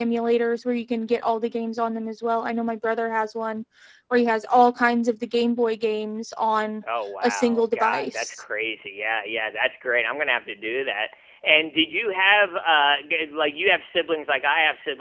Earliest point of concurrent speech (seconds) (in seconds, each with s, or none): 7.2 s